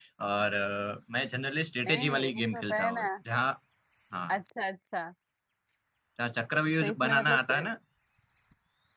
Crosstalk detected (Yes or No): Yes